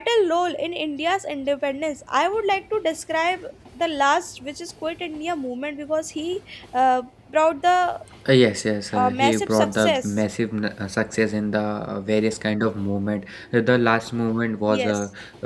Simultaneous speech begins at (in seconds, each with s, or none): 8.9 s